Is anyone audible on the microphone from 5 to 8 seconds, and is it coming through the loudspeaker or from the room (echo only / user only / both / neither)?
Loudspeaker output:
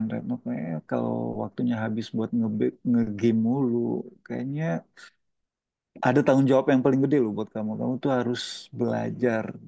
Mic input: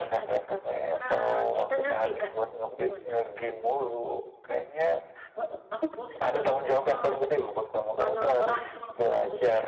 both